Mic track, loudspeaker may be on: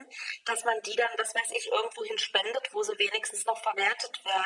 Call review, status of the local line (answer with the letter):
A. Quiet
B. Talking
A